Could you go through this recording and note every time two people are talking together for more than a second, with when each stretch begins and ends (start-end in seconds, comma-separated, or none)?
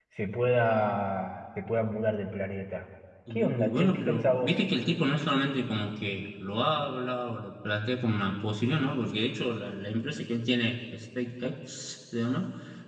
3.3-4.6